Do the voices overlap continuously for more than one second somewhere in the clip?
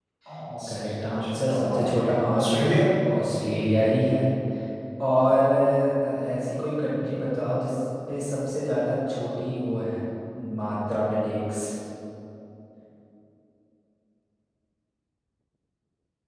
Yes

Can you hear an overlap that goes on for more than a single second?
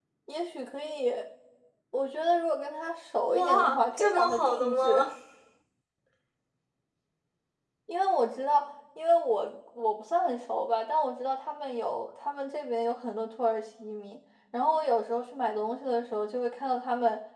Yes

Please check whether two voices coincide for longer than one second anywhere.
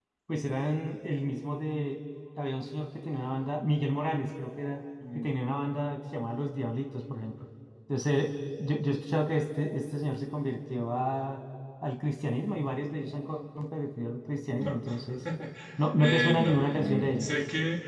Yes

